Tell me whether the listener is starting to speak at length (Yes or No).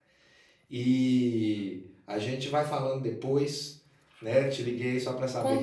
Yes